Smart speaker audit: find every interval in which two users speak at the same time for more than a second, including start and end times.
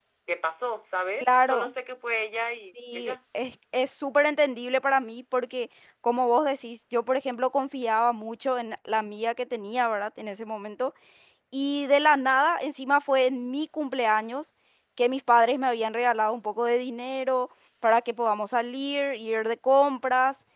none

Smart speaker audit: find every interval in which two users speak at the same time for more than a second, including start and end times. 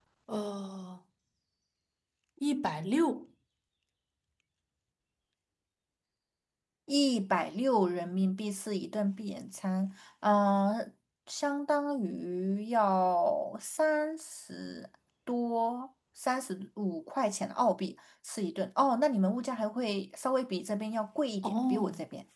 none

